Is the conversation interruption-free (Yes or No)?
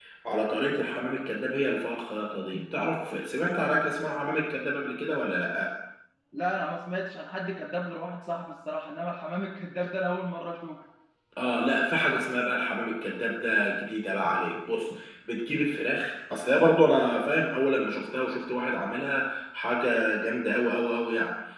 Yes